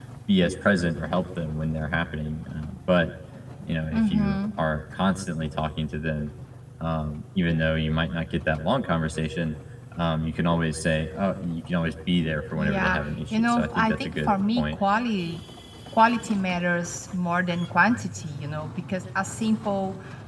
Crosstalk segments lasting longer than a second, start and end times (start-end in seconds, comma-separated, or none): 12.6-14.8